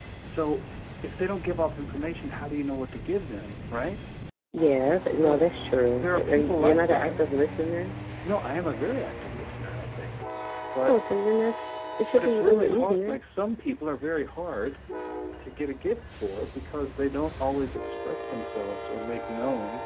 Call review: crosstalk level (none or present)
present